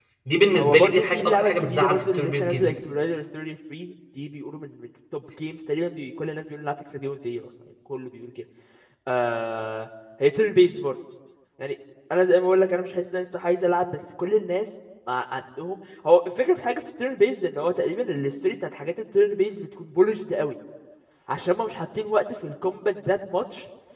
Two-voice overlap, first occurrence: 0.5 s

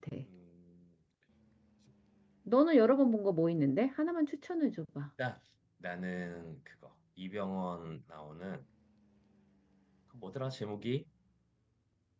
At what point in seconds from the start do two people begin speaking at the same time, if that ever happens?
none

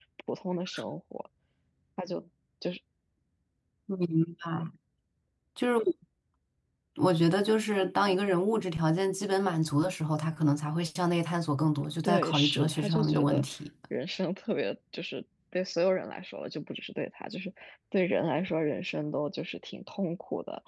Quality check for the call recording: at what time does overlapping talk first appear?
12.0 s

